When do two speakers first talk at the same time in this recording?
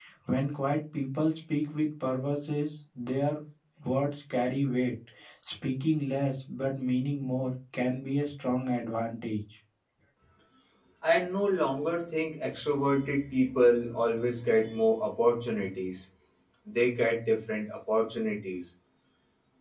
none

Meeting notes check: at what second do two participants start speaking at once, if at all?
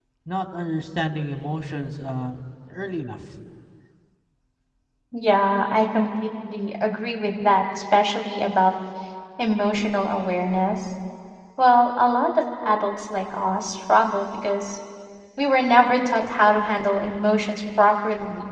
none

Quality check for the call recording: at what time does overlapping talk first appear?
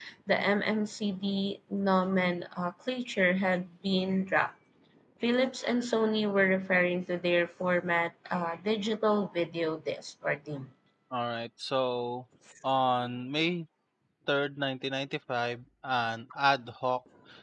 none

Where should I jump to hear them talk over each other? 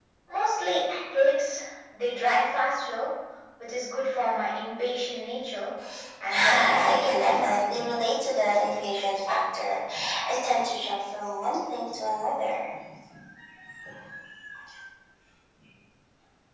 6.3 s

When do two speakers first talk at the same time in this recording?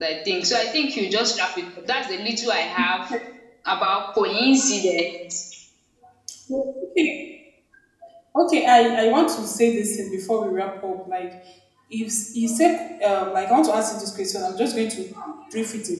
none

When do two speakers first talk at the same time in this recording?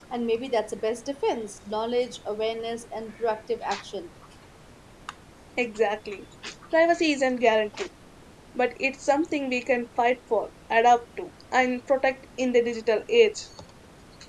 none

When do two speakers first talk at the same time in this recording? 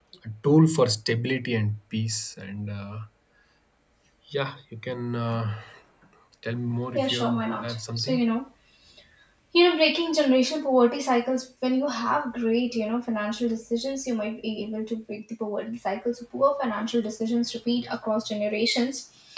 7.0 s

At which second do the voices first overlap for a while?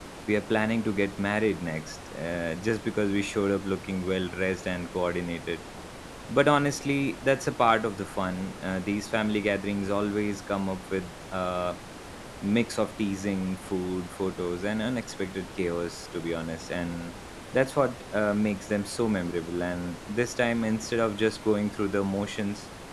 none

